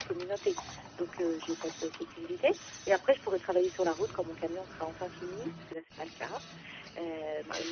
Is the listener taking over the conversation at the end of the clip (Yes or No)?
No